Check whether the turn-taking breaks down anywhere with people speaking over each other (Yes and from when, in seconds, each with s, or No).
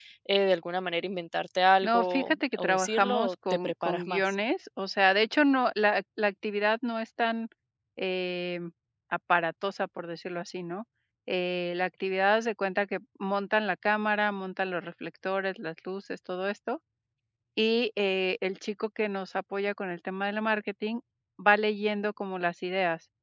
Yes, from 1.8 s